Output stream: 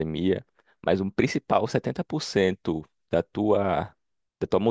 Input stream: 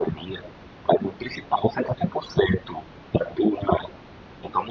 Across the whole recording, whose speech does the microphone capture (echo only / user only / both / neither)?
echo only